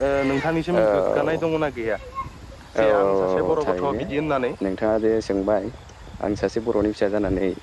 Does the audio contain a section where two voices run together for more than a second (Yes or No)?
Yes